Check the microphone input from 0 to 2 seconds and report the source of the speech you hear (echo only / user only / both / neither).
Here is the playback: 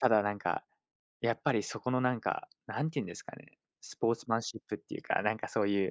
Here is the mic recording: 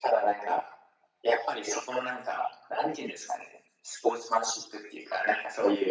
echo only